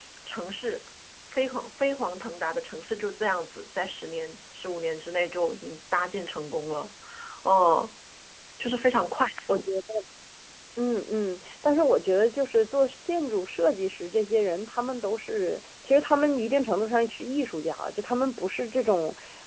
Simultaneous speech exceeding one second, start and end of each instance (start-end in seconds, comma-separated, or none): none